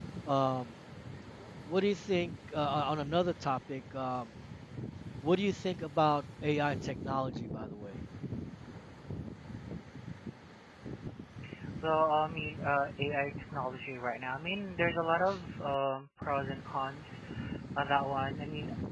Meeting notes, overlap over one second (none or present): none